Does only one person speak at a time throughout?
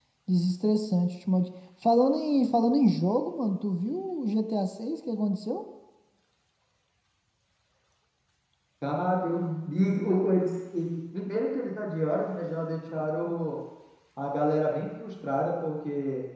Yes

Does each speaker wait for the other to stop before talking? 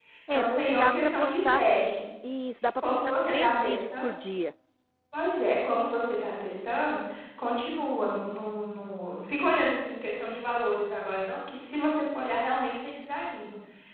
No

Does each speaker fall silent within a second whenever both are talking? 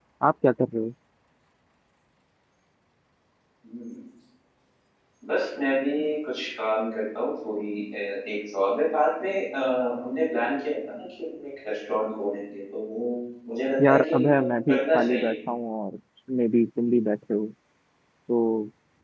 No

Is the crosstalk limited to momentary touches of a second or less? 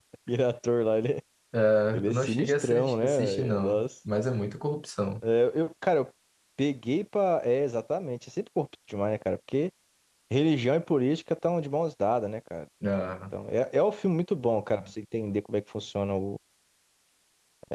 No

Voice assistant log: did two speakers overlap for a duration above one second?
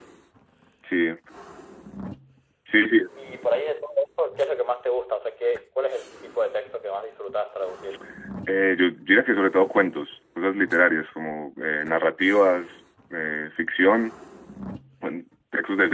No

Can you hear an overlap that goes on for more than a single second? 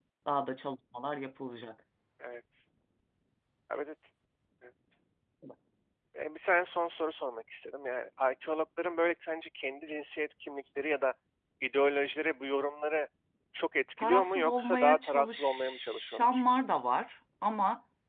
Yes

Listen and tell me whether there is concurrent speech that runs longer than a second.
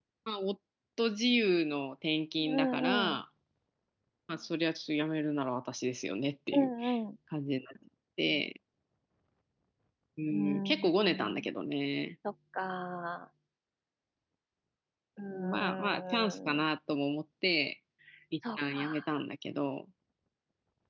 Yes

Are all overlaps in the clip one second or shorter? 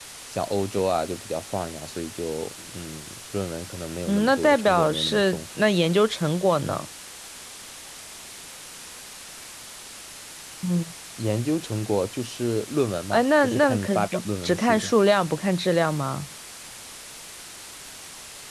No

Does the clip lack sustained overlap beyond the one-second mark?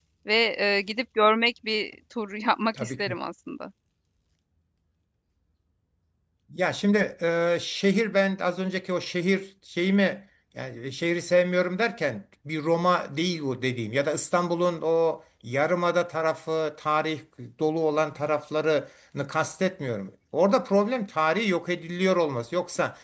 Yes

